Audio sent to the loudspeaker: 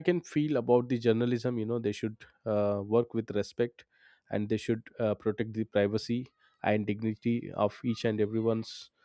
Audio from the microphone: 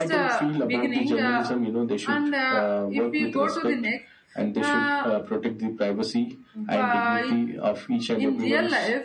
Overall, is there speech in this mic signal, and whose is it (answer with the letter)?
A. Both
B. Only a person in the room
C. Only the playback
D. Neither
A